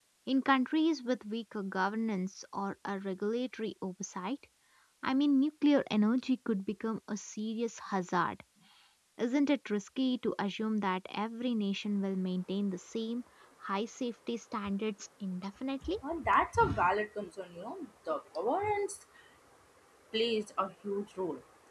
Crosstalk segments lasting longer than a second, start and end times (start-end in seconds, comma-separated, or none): none